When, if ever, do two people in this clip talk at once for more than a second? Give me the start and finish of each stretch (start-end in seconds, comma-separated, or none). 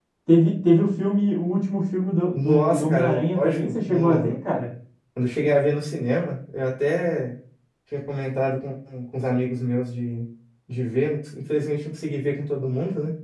2.3-4.3